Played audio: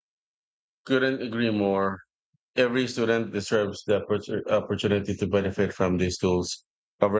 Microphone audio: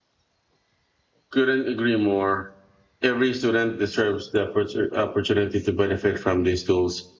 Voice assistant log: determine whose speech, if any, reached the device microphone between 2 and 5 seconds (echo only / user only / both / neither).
echo only